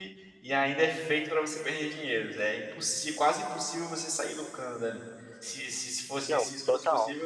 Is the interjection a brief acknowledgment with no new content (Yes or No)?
Yes